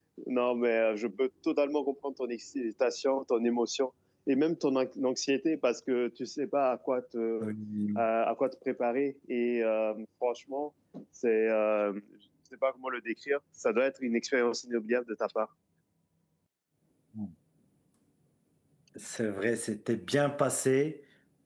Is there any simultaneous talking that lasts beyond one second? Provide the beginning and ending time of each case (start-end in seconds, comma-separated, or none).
none